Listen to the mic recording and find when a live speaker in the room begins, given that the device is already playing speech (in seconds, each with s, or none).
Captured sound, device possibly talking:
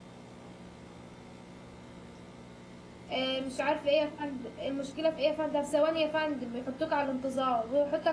3.1 s